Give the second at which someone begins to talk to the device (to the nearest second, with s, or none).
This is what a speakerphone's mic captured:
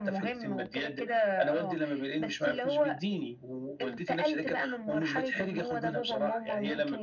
none